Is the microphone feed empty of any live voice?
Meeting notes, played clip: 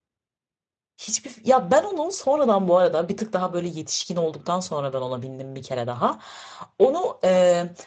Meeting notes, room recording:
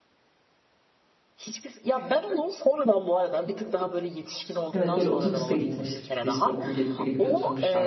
No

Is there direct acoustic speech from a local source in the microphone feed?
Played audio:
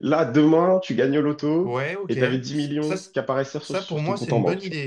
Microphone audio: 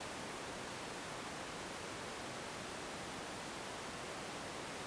No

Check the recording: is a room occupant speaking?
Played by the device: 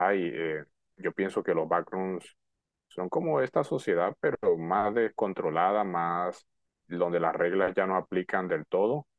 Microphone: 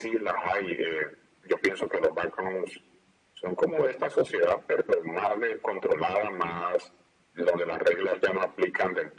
No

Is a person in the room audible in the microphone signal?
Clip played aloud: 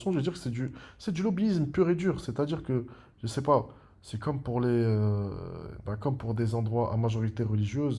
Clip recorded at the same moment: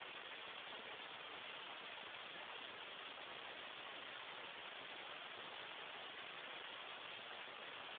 No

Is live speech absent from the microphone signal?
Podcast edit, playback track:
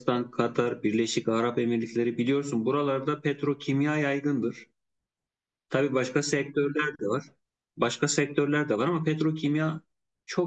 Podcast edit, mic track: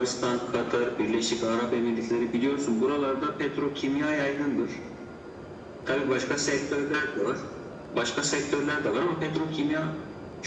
Yes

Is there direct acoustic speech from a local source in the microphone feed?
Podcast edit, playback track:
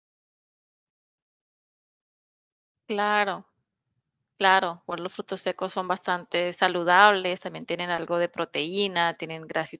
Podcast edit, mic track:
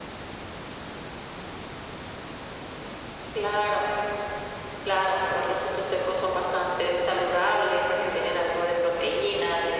No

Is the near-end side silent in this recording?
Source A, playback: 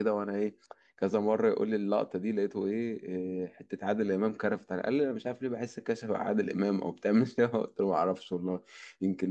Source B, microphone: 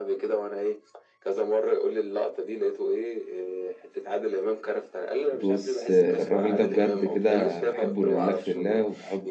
No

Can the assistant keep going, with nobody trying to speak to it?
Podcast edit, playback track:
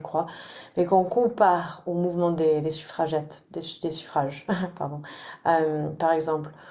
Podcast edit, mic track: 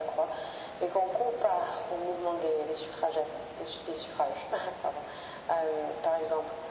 Yes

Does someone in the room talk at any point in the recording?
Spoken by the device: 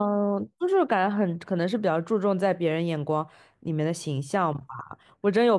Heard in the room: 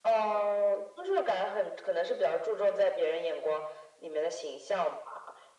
No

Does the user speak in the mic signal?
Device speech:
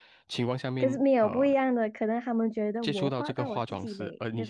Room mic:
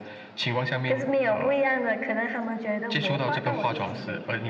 Yes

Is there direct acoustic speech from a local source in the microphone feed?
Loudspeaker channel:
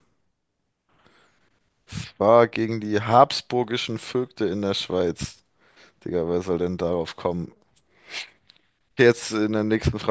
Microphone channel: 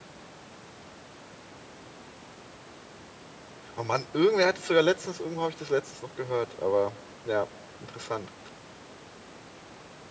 Yes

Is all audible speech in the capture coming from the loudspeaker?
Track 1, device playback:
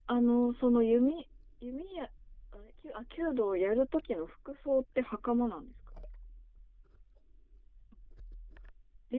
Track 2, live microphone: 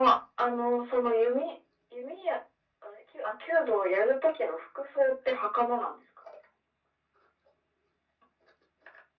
Yes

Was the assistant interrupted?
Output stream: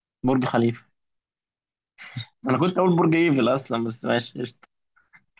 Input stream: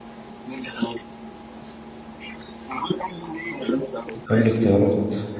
Yes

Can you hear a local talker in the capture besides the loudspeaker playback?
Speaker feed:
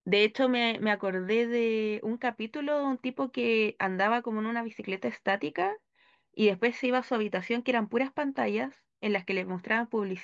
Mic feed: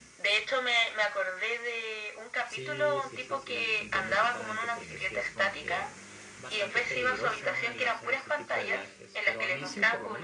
Yes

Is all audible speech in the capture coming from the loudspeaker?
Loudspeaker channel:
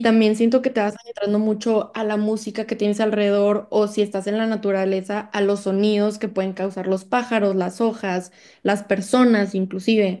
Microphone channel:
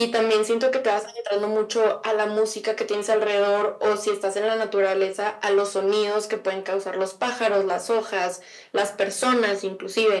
Yes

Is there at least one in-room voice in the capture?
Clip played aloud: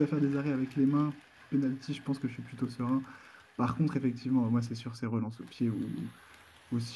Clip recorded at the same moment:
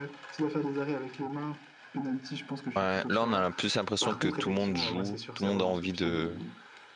Yes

